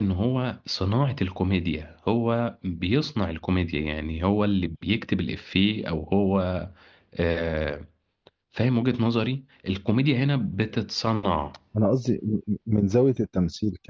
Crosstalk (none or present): none